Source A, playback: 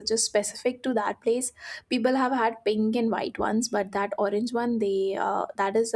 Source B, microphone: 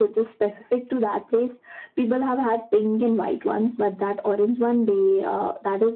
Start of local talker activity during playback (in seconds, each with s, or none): none